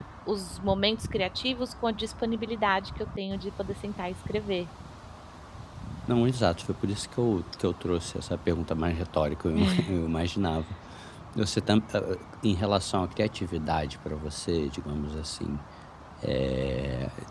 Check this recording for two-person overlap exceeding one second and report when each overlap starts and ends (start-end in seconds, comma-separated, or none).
none